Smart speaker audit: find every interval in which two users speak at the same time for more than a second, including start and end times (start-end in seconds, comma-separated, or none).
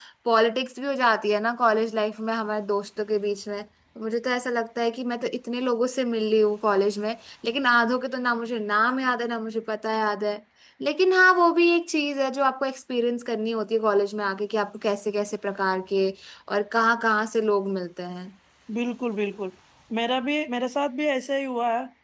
none